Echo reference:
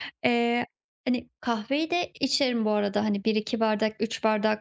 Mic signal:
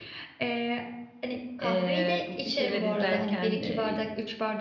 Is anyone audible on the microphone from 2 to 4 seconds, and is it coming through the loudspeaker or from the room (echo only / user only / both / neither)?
both